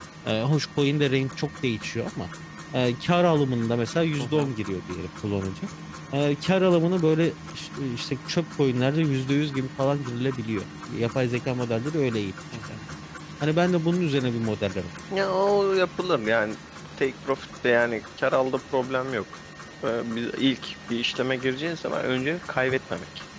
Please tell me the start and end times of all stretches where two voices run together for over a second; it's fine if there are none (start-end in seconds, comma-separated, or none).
none